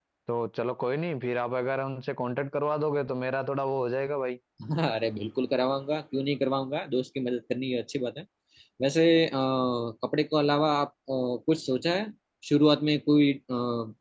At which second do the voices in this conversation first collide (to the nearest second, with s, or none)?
none